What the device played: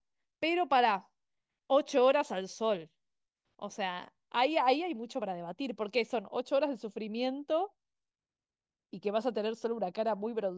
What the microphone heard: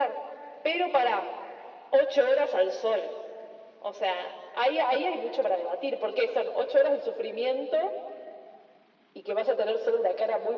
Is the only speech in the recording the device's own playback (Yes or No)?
Yes